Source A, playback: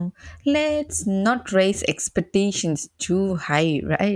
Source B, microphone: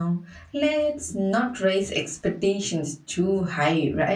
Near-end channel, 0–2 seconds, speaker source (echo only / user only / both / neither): echo only